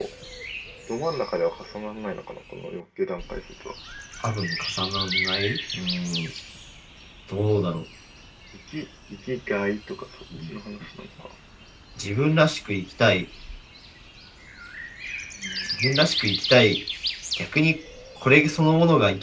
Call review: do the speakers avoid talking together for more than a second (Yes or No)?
Yes